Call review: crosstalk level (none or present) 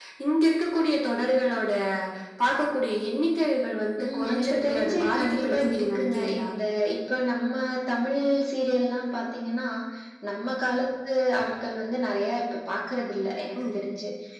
present